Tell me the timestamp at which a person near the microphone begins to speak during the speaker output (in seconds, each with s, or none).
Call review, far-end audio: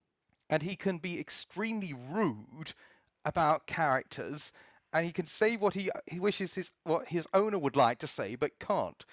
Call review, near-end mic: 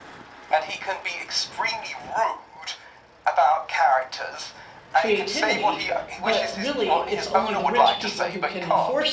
4.9 s